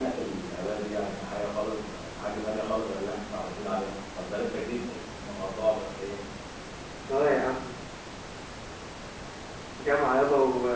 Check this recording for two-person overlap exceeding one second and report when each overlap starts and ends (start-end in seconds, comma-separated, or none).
none